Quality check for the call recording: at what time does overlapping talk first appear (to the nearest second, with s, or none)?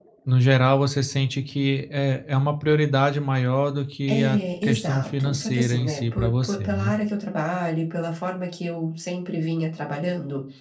4 s